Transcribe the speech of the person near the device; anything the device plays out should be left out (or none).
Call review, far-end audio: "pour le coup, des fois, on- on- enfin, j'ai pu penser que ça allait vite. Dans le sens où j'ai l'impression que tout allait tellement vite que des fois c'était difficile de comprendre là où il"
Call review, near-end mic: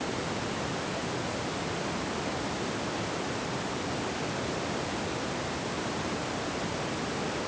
none